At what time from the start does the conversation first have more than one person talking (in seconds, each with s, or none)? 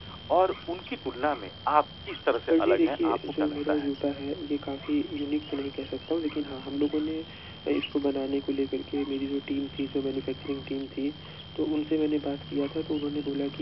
2.5 s